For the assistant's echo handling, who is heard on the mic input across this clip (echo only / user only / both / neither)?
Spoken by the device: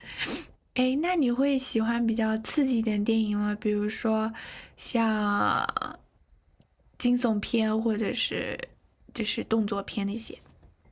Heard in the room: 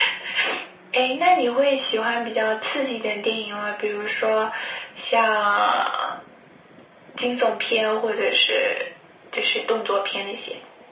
echo only